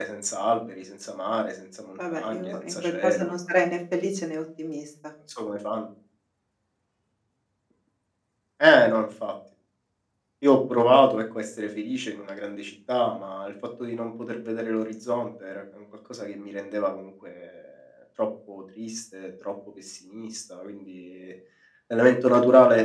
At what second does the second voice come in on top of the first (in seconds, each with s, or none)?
2.0 s